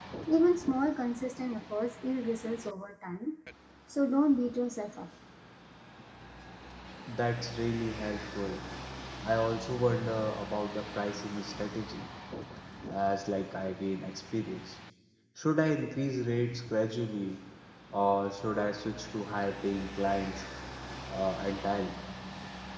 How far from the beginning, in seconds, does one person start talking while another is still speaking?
none

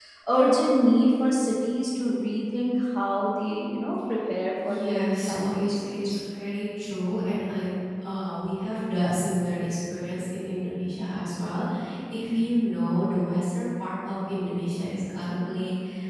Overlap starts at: 4.7 s

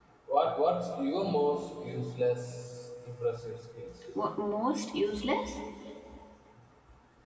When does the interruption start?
none

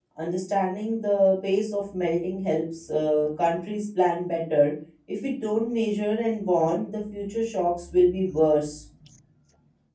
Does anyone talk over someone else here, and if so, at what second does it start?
none

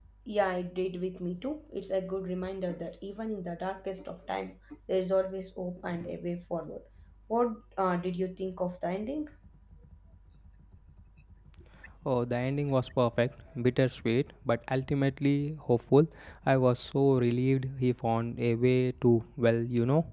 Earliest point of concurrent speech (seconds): none

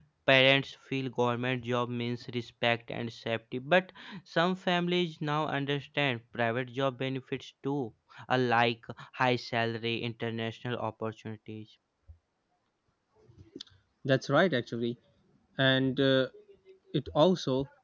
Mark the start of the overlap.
none

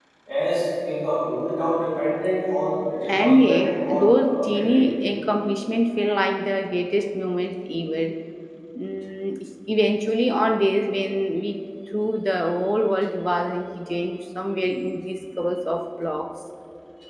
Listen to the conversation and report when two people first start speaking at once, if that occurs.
3.2 s

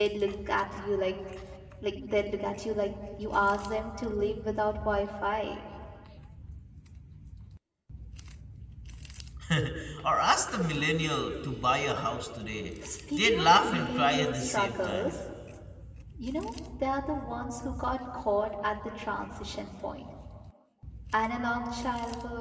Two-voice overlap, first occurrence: 13.2 s

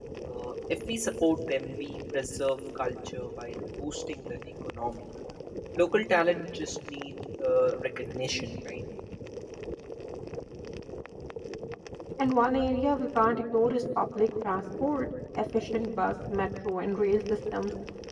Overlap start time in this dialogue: none

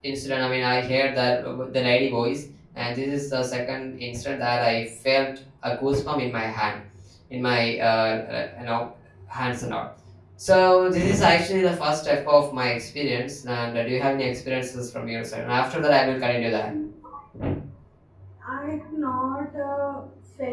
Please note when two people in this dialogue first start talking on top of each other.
none

